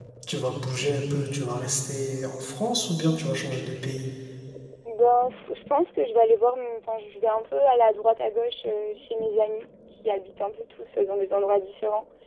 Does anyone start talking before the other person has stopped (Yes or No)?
No